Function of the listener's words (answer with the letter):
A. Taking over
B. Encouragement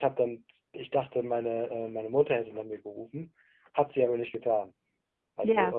B